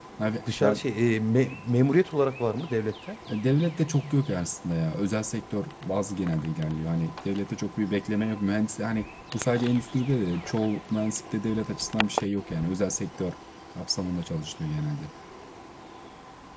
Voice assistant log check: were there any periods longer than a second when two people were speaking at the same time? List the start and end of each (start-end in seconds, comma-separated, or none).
none